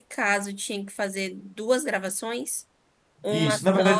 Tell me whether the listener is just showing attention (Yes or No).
No